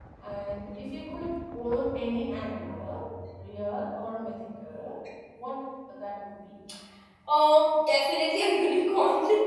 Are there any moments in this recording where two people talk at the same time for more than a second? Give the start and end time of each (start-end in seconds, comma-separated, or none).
none